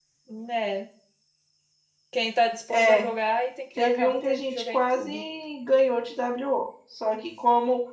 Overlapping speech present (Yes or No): Yes